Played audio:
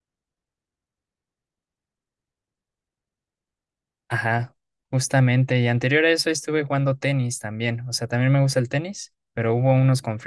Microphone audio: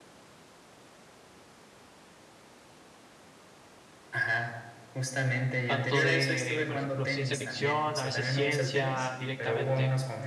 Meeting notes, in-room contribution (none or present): present